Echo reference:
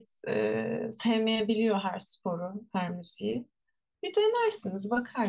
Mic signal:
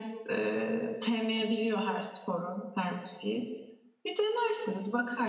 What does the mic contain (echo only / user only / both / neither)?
echo only